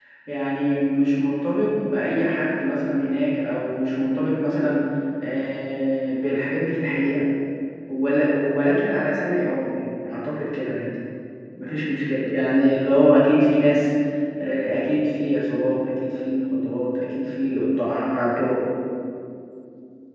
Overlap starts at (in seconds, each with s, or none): none